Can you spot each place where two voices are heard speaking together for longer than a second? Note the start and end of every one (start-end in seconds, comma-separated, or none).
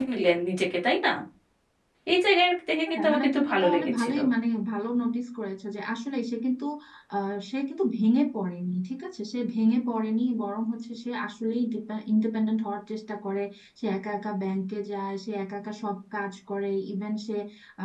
3.0-4.2